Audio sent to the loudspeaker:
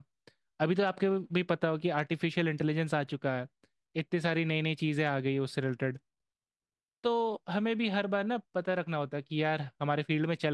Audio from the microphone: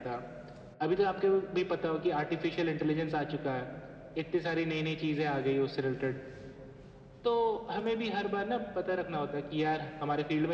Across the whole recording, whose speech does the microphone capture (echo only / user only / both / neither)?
echo only